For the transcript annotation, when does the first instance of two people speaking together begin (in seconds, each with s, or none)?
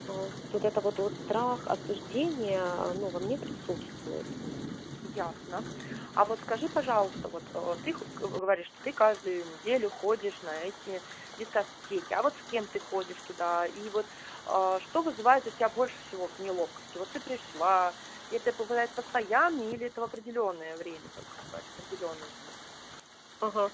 none